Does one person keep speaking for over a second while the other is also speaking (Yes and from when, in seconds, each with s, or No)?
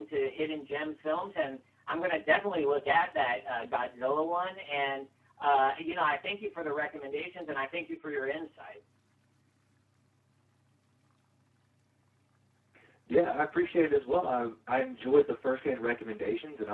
No